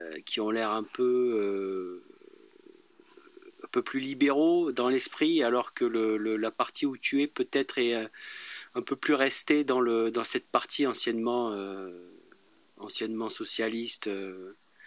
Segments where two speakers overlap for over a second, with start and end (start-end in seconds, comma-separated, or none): none